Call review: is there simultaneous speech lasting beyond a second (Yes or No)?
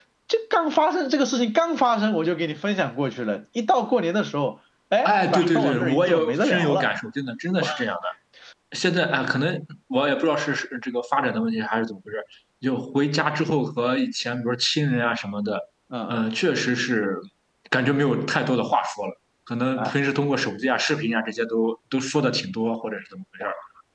Yes